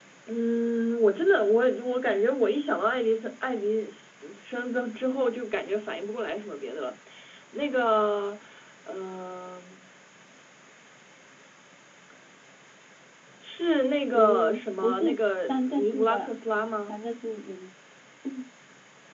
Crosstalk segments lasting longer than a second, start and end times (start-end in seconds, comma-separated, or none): 14.1-16.3